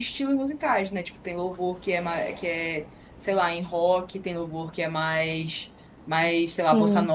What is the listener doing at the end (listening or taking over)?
listening